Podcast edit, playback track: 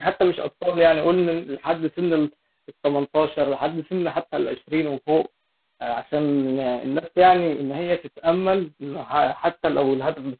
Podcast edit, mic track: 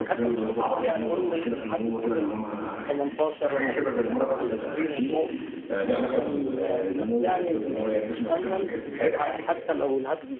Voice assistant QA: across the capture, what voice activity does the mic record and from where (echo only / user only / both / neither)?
both